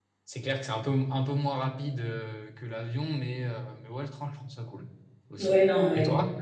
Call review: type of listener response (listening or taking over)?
taking over